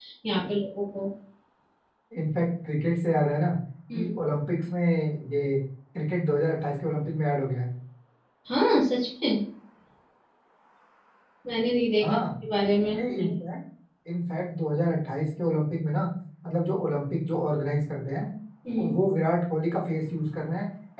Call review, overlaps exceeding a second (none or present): none